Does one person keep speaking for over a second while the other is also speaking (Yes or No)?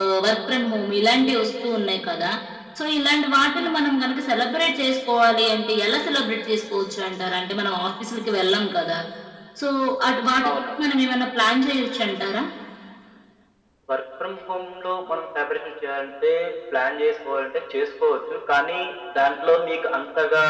No